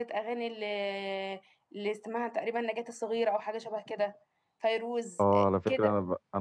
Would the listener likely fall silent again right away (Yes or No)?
No